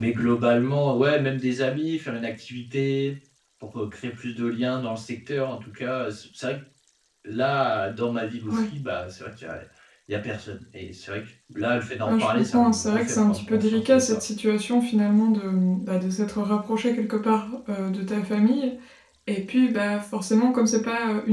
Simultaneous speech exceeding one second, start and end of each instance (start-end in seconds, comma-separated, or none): 12.1-14.2